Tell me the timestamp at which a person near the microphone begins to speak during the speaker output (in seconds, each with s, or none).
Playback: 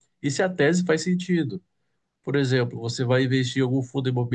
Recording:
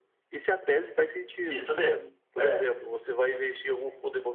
1.5 s